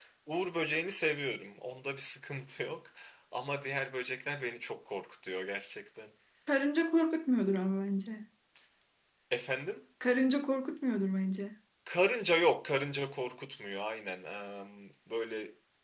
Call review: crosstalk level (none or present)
none